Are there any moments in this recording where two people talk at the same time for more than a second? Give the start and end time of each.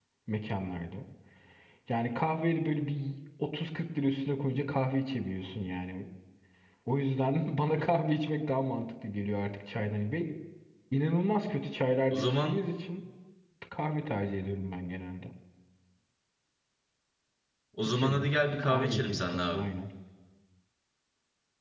17.8-19.6

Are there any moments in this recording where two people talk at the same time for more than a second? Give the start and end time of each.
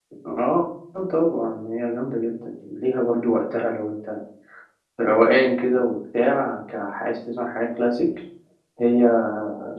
none

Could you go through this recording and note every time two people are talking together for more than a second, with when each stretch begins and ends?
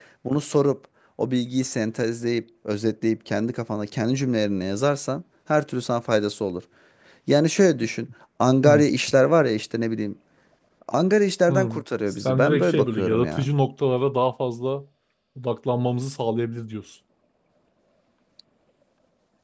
12.1-13.5

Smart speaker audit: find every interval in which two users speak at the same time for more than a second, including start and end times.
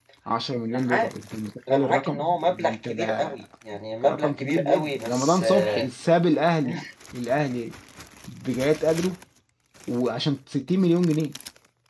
1.7-3.4, 4.0-5.9

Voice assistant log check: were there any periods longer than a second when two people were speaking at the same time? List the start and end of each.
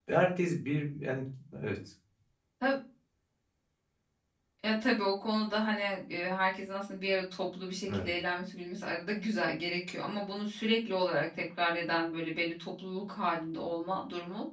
none

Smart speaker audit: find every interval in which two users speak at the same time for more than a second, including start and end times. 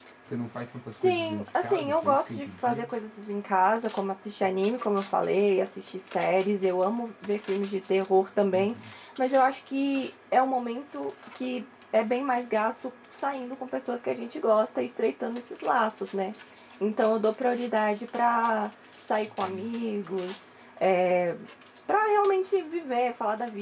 1.0-2.9

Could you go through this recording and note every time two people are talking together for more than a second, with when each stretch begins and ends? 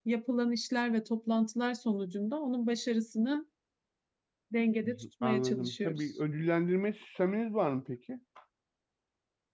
4.8-6.1

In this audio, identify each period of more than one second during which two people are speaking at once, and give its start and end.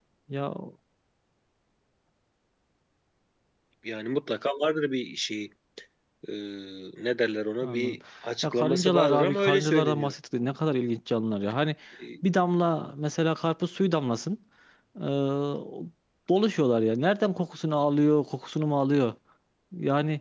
8.4-10.1

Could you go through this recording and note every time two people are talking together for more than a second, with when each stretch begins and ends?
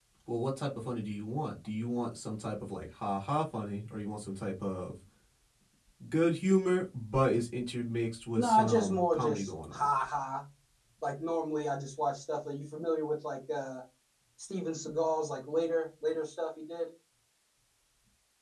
8.4-9.9

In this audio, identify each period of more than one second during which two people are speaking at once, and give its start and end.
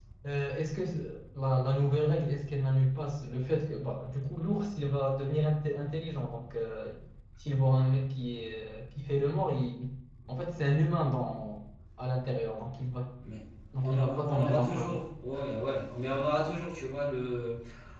13.8-15.0

